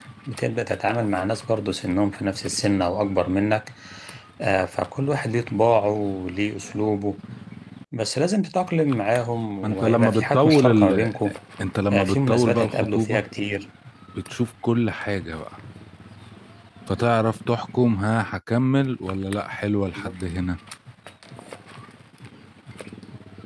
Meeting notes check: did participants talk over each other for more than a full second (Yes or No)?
Yes